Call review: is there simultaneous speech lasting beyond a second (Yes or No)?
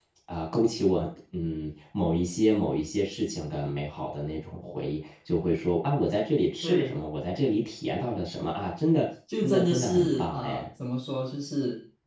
Yes